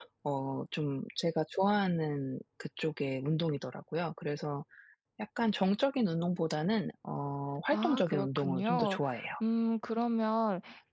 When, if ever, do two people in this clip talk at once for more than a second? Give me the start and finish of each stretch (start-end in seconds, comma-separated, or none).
7.7-9.0